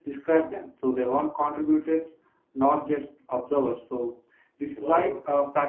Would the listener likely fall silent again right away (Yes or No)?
Yes